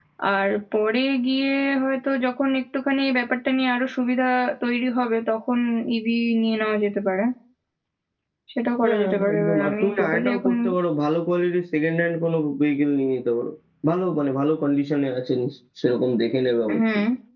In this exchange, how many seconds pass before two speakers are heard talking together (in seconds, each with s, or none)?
8.8 s